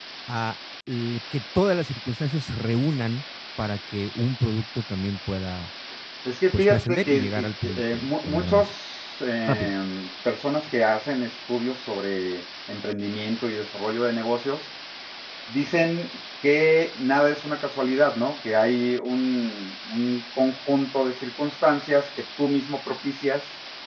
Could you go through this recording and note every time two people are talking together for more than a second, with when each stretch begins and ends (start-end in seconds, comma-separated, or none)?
6.5-8.7